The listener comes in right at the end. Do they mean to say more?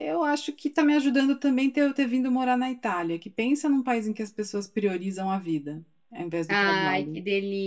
Yes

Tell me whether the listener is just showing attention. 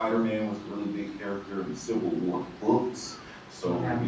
Yes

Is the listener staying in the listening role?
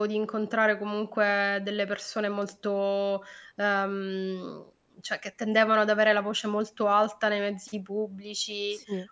Yes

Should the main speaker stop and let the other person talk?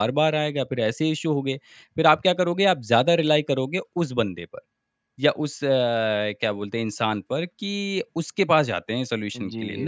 Yes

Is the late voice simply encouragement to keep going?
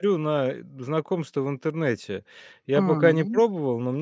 Yes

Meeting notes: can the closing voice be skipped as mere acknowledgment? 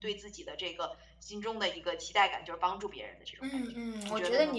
No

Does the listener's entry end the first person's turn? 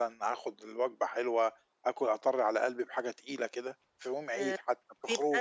Yes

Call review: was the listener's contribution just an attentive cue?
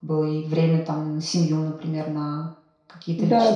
No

